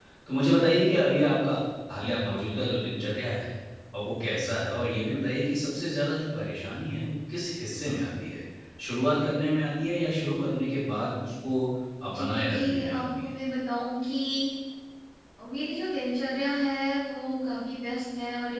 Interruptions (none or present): present